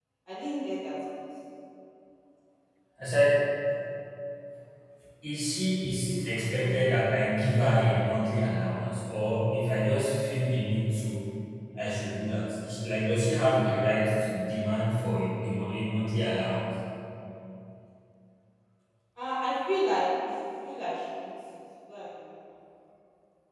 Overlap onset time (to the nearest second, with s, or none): none